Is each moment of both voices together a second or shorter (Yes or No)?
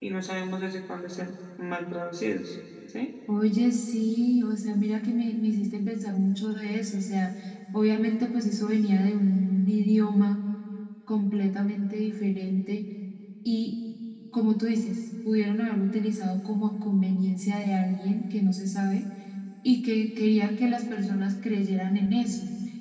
Yes